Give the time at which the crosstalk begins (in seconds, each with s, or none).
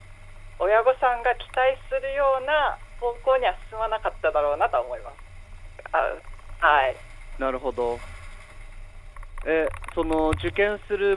none